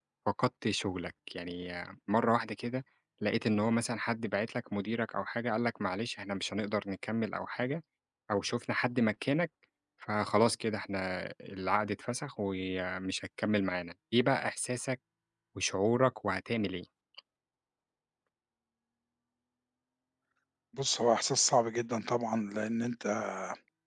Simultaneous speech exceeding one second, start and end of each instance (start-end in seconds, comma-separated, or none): none